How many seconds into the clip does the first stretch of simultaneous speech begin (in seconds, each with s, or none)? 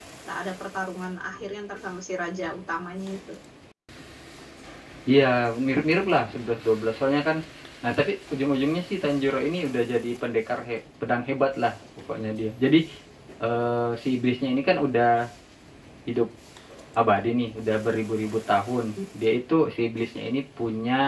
none